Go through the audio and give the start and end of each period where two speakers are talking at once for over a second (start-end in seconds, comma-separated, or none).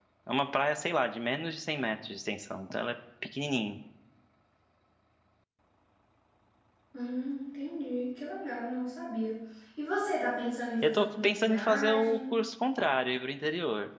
10.8-12.2